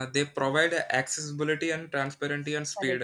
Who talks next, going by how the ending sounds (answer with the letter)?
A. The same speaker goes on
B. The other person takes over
B